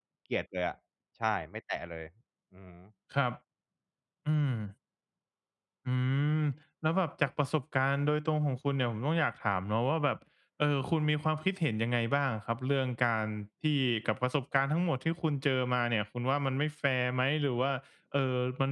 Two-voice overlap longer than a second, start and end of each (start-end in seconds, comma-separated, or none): none